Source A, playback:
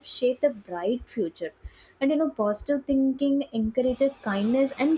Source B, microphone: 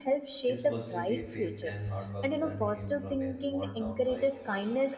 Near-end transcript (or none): His positivity, faith, and hard work turned him from a small town boy